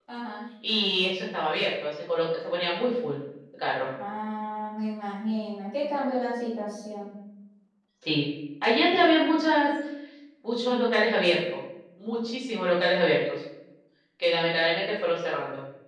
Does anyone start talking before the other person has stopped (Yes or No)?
No